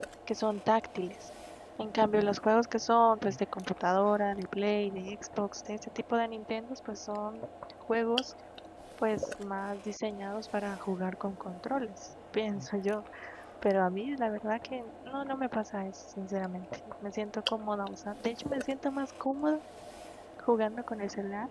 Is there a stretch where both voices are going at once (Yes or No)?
No